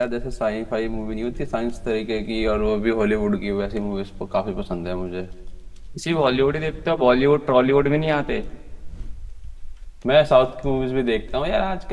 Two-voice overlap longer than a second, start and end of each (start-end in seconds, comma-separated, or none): none